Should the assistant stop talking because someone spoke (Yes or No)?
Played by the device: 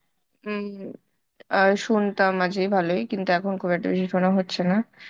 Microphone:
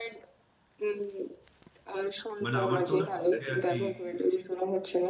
Yes